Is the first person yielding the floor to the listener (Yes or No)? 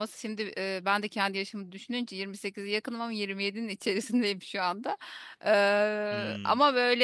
No